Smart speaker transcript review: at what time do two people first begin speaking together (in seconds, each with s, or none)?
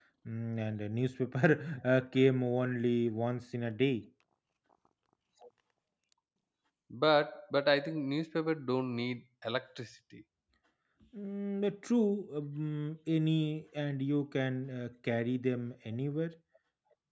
none